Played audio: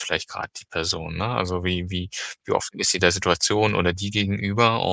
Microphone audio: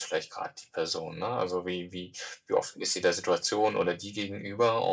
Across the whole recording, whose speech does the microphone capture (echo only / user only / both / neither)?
echo only